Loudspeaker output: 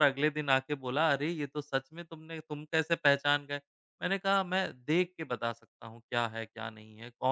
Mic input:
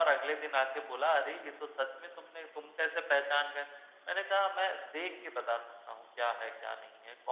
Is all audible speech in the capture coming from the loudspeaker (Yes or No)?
Yes